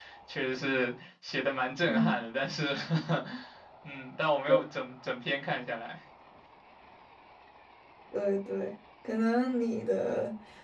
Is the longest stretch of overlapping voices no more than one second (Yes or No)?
Yes